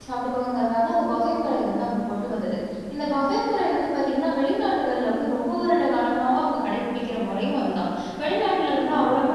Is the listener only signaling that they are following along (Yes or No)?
Yes